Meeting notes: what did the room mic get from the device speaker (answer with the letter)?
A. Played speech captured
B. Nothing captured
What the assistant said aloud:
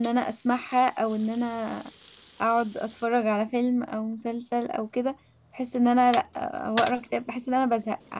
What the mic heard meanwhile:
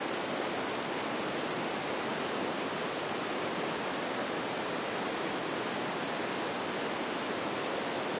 B